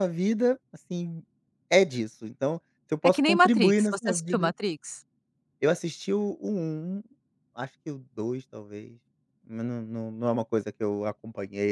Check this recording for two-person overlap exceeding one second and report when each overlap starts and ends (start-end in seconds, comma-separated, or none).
3.0-4.5